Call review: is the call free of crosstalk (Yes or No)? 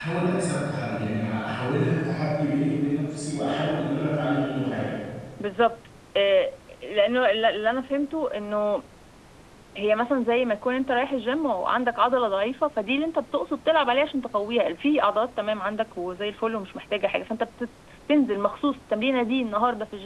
Yes